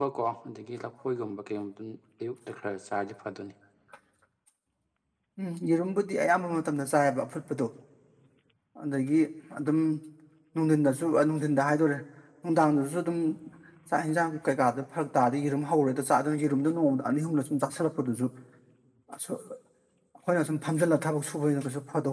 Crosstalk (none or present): none